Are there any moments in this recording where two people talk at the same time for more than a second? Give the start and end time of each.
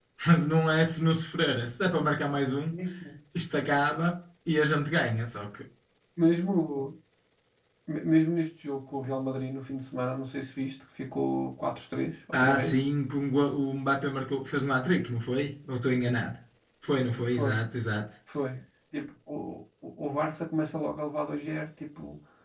none

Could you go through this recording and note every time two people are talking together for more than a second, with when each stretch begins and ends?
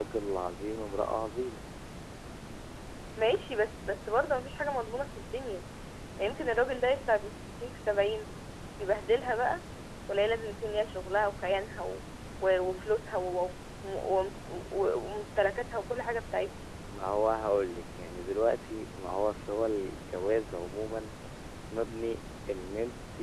none

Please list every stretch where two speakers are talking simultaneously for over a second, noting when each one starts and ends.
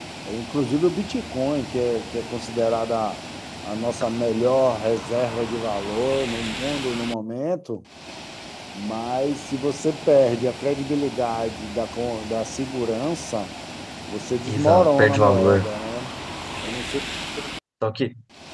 14.4-15.8

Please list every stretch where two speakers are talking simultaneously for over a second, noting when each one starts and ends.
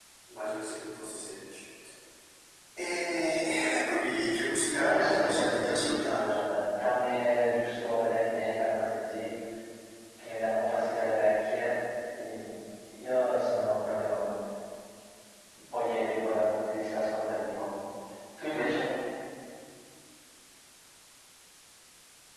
4.7-6.3

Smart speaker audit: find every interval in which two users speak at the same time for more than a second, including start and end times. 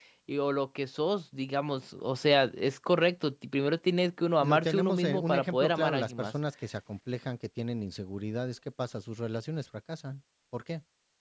4.4-6.3

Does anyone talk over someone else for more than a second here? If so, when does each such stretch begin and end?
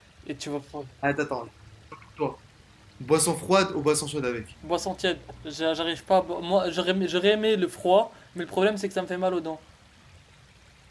none

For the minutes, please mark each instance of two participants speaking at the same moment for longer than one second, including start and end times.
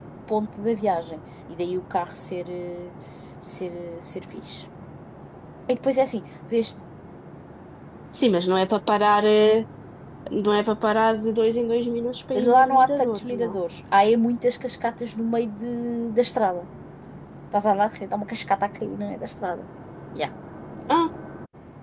12.4-13.6

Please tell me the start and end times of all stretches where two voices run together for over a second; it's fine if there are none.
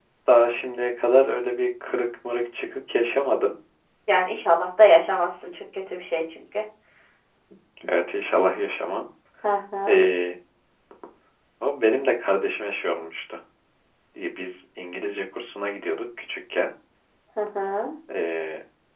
none

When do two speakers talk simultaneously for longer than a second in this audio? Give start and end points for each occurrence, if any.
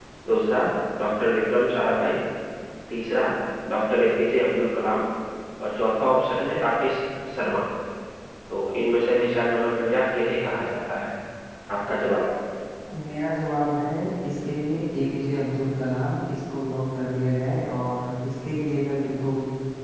none

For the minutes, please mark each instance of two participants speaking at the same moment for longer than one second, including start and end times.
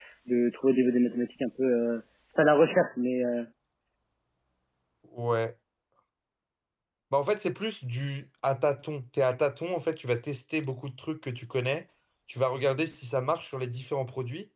none

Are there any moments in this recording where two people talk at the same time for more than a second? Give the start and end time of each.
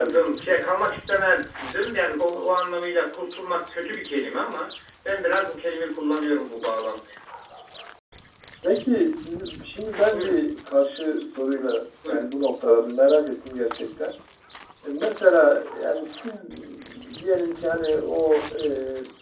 none

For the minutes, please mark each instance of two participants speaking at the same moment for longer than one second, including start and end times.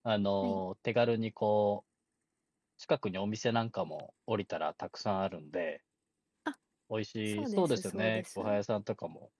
7.3-8.6

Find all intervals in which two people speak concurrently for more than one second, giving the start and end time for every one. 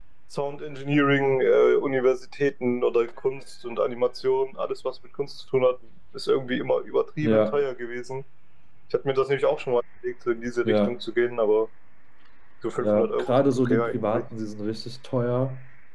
12.8-14.2

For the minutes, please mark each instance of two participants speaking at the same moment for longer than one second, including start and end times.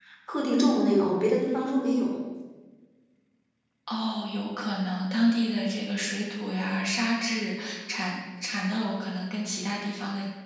none

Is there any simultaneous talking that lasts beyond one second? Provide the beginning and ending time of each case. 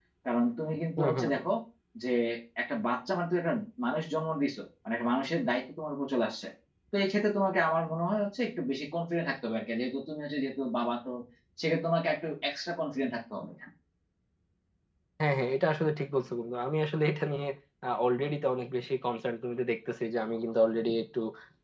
none

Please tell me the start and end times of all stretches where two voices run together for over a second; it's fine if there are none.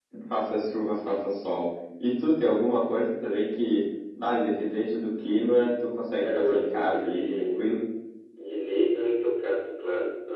6.2-7.7

